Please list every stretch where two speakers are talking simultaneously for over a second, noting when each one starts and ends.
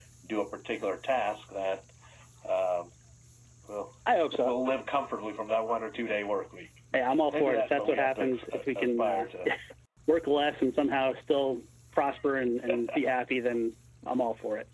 7.3-9.2

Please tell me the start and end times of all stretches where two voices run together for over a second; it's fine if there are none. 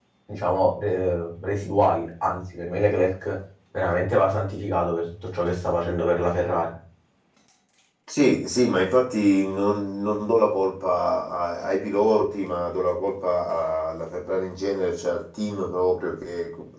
none

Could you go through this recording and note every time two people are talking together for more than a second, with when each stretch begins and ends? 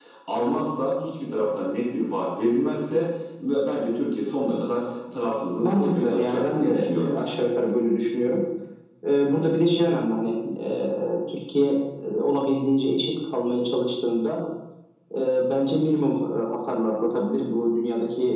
5.6-7.3

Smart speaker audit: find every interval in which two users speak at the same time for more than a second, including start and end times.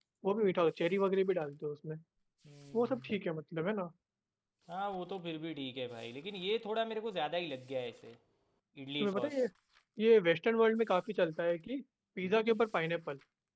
none

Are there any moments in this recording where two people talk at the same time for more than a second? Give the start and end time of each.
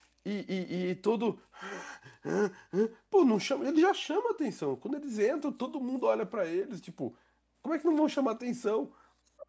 none

